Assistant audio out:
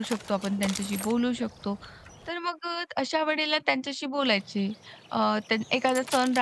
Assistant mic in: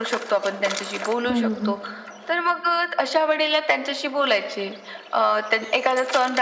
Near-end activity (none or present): present